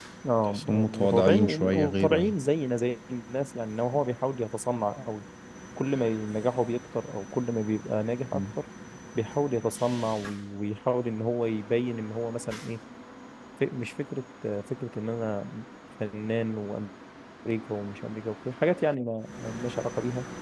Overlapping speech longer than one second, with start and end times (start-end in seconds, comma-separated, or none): 0.5-2.4